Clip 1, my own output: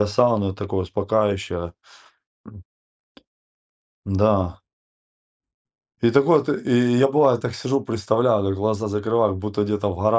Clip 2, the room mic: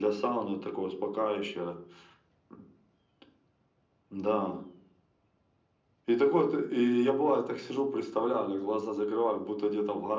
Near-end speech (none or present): none